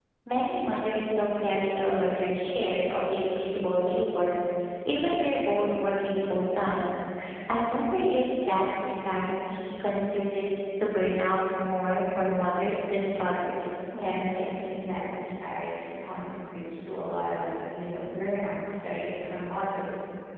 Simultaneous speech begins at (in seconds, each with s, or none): none